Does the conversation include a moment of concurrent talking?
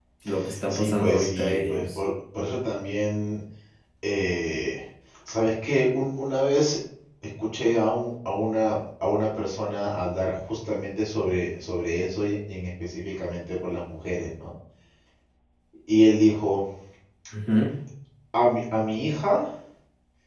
Yes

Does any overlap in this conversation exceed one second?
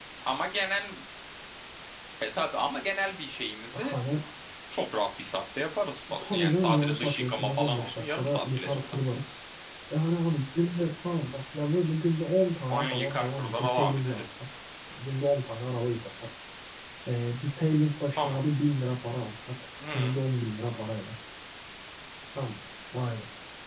Yes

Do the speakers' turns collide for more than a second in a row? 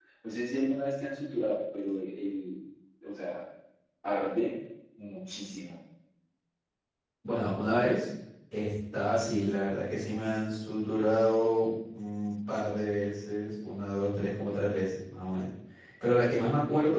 No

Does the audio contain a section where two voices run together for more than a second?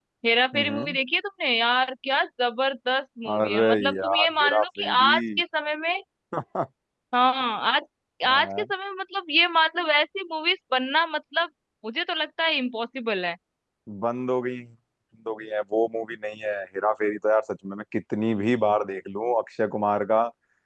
Yes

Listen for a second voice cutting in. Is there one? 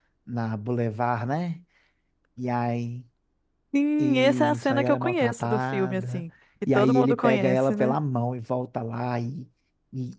Yes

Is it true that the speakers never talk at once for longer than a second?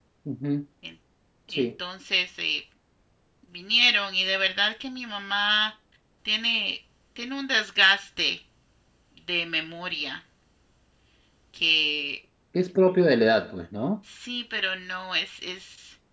Yes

